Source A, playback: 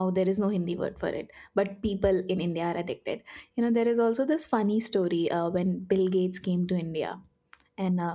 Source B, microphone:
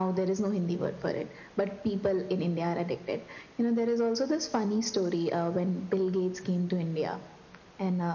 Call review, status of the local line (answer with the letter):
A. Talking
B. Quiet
B